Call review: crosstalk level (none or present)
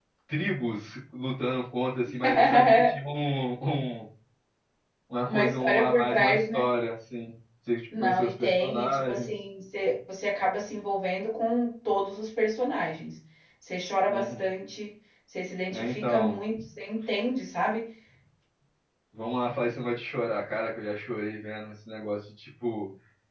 present